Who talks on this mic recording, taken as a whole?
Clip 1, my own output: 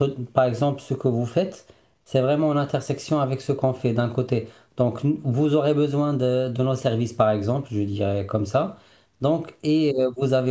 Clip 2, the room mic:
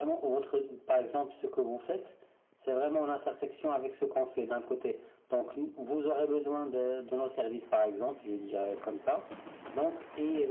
echo only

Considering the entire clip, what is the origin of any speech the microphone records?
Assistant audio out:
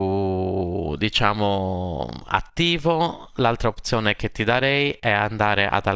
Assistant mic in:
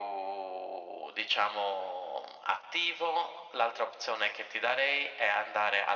echo only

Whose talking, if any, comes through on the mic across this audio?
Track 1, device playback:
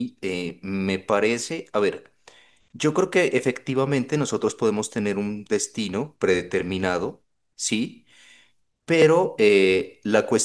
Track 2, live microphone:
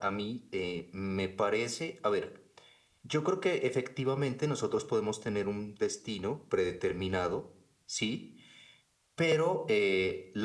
echo only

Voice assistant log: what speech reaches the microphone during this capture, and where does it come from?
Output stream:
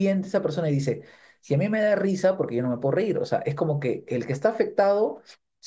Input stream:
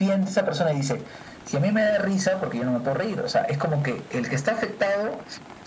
echo only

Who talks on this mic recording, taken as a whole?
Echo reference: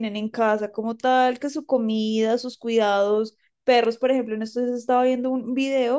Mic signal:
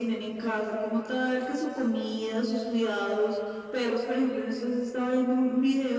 echo only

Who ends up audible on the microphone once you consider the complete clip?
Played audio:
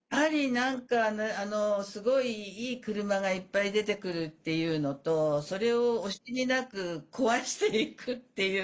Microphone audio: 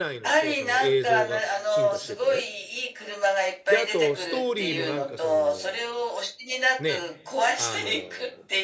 both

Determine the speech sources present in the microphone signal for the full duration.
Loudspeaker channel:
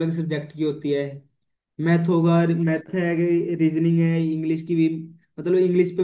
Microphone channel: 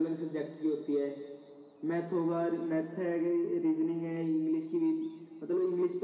echo only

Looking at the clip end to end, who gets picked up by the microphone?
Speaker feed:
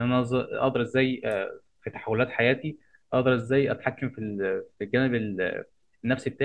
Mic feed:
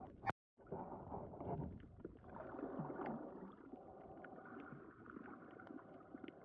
neither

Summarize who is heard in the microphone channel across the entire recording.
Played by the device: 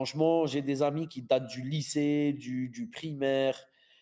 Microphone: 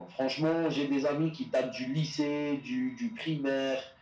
echo only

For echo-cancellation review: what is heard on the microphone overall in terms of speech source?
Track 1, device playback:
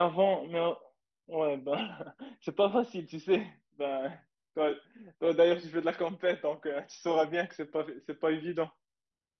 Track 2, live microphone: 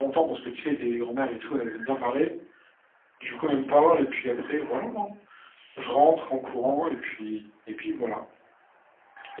user only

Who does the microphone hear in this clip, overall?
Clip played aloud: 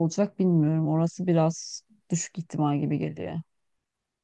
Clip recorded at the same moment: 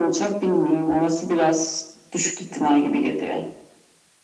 echo only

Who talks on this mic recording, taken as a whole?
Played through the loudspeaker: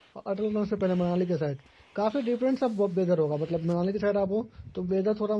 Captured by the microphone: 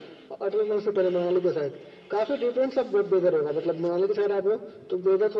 echo only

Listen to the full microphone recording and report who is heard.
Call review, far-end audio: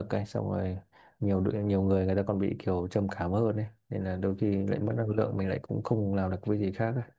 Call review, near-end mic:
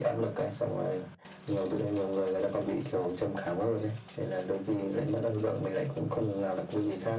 echo only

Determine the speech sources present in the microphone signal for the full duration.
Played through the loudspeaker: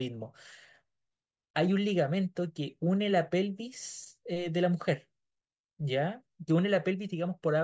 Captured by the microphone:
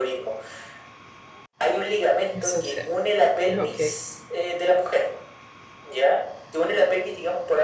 both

